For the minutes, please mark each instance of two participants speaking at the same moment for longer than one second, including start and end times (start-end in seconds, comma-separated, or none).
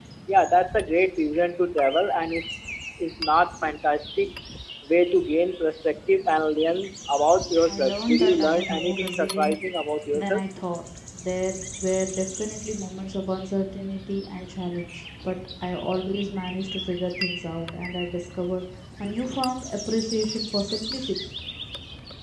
7.6-9.6